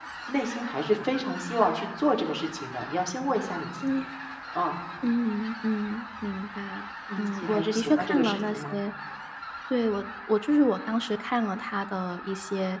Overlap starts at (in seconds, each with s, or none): 7.1 s